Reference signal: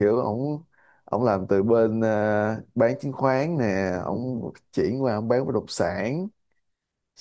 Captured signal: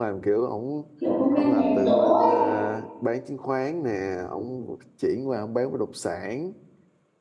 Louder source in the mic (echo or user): user